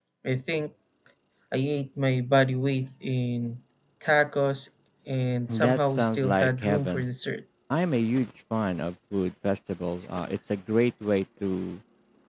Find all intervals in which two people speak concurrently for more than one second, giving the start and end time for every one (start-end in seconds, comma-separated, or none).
5.5-7.0